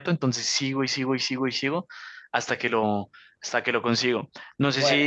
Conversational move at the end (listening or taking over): listening